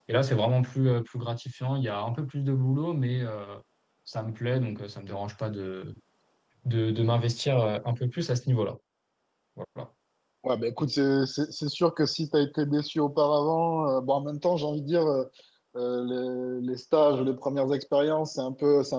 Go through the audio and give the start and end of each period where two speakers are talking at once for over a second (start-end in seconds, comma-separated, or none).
none